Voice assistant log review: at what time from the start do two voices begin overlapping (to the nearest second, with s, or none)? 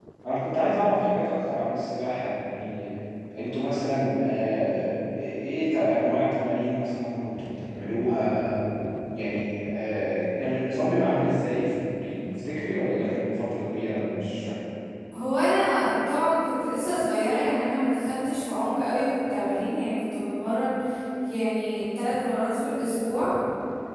none